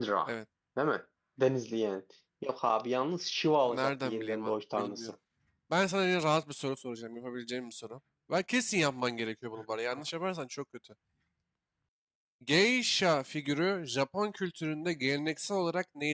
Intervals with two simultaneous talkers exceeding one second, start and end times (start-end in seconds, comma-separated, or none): 3.6-5.1